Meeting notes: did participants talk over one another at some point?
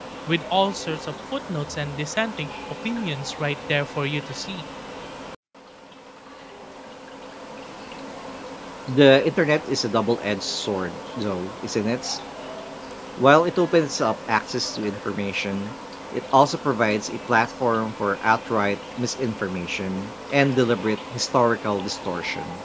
No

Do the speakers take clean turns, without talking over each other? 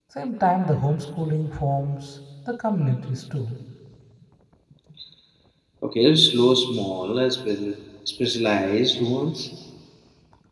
Yes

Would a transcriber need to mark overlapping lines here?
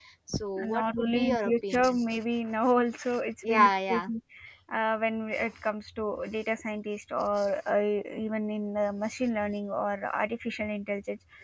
Yes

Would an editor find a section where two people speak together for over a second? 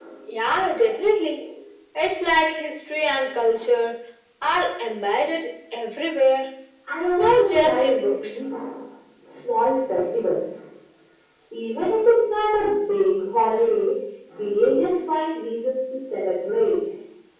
Yes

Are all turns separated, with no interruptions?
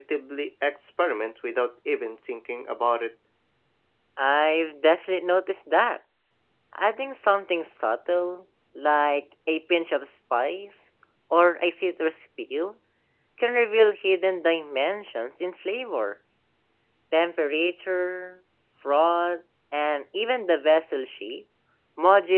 Yes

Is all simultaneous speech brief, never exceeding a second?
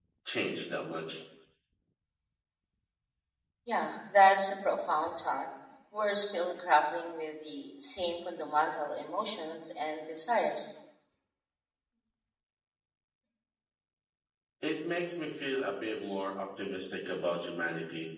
Yes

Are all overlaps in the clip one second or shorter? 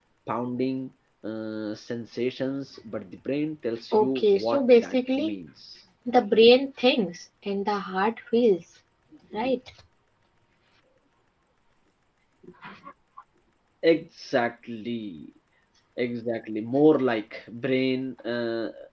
No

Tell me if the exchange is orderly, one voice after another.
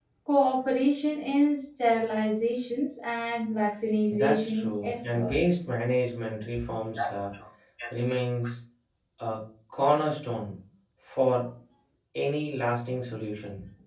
No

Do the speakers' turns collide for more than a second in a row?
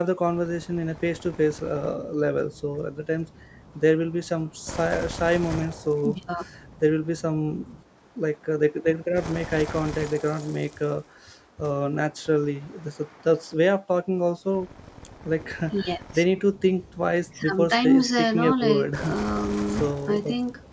Yes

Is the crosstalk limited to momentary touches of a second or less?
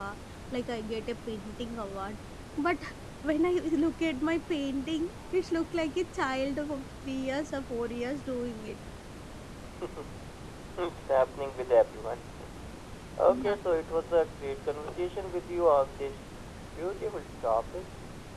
Yes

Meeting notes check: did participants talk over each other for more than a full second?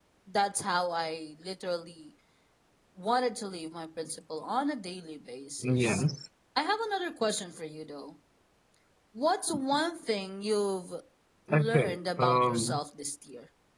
Yes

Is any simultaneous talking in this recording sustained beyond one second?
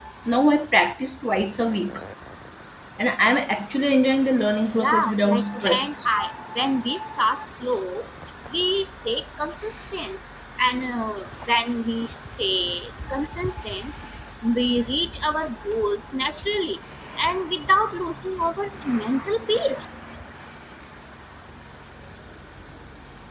Yes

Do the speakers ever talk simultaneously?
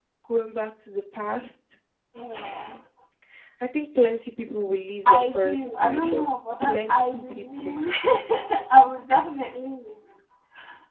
Yes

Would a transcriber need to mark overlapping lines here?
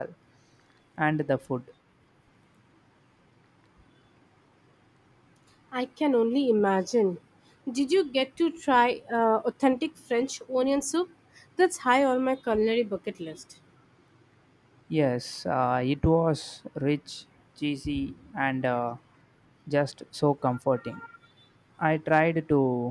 No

